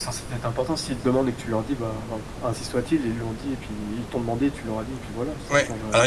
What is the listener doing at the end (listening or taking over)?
taking over